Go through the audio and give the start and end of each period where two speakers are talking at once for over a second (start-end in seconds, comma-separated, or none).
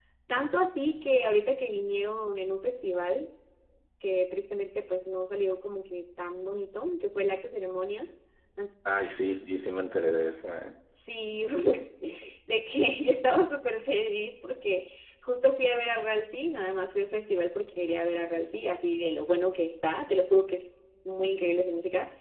none